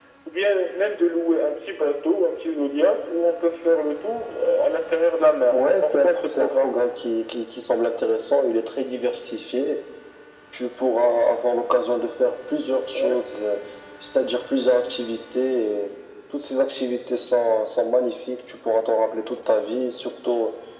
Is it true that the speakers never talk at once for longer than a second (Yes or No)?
No